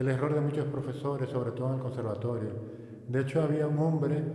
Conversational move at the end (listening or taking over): listening